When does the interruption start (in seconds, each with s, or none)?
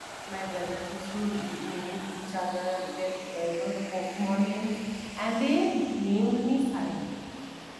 none